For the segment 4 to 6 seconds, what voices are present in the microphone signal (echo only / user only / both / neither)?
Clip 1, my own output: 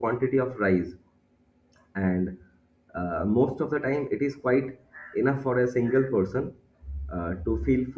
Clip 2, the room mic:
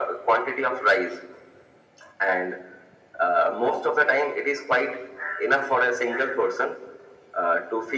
echo only